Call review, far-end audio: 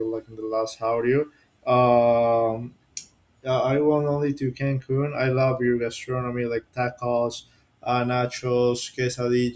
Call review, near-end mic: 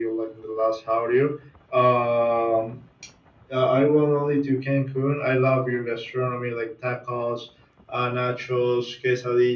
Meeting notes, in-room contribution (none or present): none